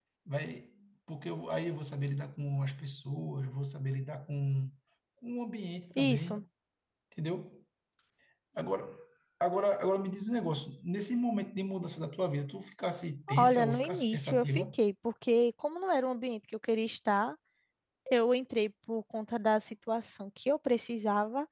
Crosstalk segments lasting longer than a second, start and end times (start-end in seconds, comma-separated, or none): 13.4-14.6